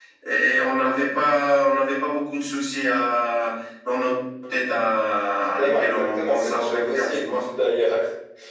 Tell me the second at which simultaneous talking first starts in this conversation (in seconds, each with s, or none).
5.6 s